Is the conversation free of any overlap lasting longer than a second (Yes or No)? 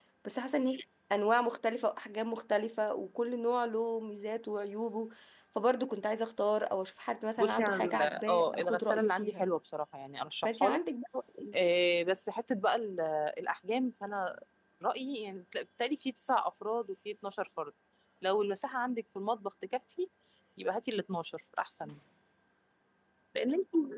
No